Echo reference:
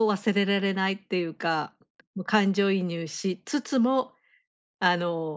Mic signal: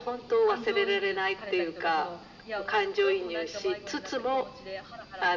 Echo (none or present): present